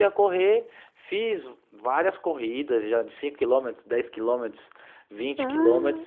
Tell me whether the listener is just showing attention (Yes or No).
Yes